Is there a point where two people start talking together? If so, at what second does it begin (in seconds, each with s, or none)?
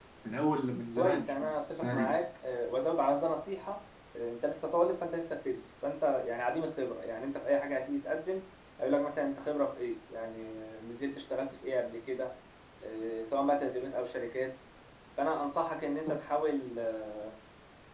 1.0 s